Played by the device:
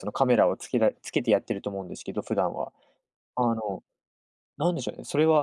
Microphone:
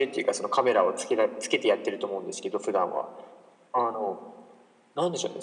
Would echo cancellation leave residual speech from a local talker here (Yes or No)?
No